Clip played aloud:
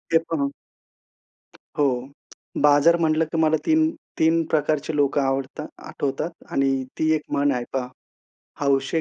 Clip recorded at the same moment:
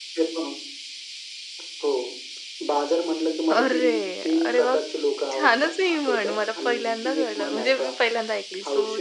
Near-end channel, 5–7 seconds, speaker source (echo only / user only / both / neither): both